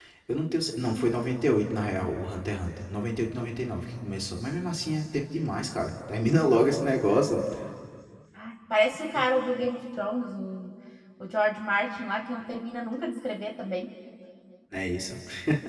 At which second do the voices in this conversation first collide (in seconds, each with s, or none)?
none